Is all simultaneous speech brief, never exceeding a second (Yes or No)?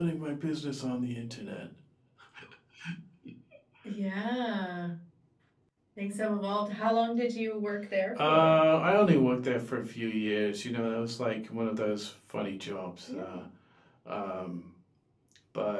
Yes